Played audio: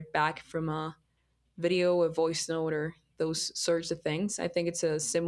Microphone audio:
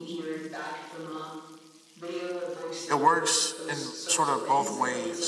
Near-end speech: present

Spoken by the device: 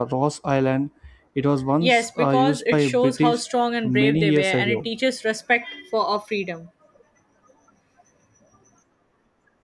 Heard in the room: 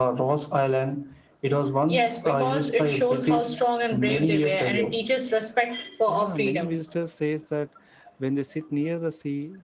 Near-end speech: present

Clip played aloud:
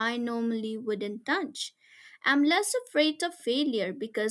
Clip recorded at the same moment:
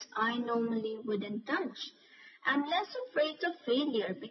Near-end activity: none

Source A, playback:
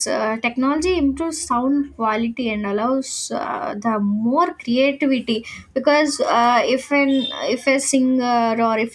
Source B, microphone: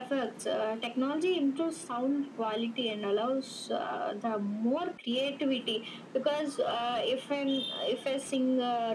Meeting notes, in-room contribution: none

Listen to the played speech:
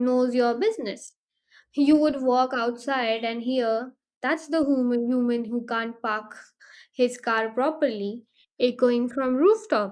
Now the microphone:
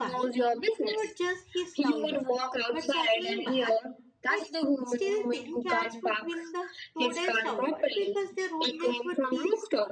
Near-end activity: present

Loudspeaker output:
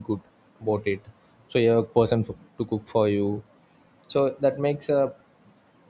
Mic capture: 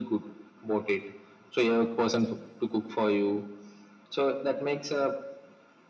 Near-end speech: none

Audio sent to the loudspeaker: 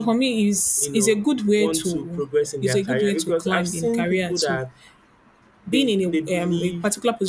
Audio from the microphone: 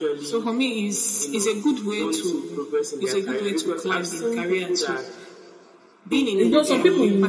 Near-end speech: present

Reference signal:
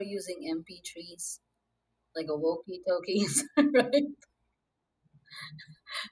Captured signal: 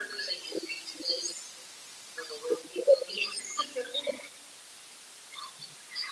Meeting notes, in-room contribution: none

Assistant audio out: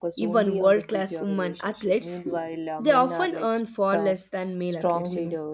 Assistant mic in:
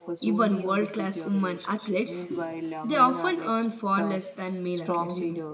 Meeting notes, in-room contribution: none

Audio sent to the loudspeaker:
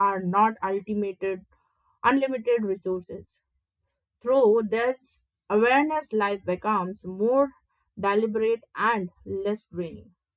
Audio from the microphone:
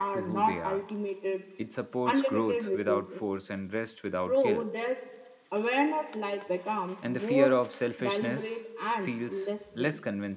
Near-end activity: present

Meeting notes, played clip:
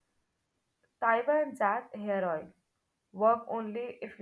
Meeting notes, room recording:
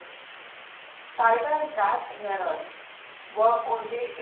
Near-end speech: none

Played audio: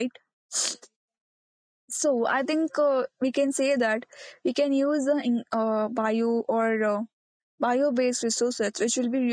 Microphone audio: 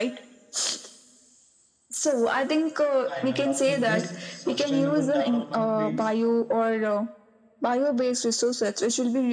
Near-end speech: present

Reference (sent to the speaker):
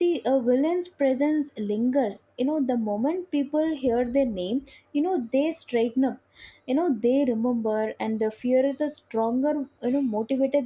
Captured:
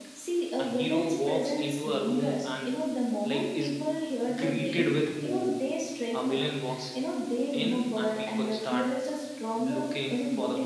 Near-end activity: present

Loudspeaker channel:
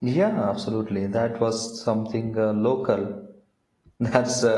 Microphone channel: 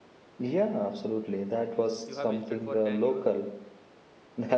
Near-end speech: present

